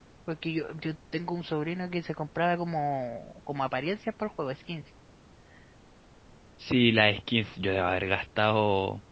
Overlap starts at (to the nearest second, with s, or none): none